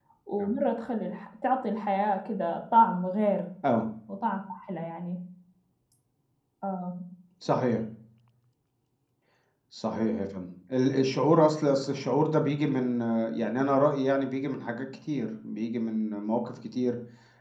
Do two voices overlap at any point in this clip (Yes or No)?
No